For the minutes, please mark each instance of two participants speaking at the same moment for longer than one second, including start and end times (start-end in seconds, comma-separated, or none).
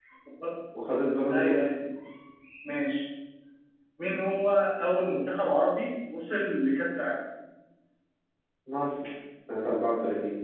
none